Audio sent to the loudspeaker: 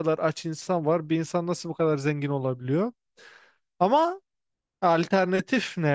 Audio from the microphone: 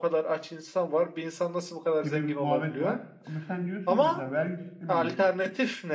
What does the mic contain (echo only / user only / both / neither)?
both